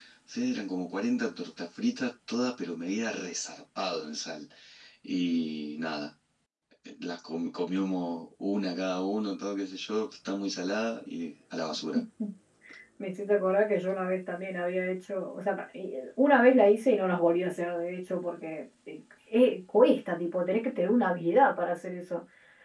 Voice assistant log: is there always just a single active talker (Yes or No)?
Yes